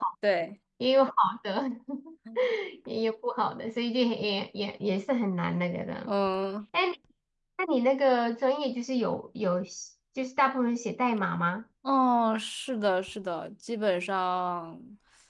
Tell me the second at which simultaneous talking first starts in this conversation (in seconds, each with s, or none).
none